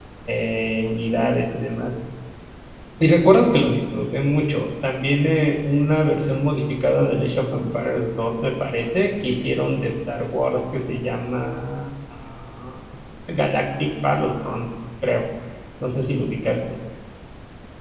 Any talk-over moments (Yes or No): No